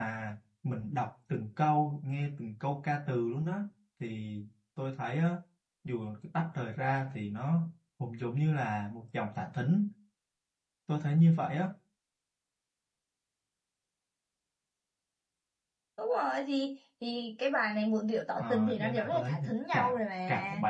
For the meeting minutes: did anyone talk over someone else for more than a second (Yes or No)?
Yes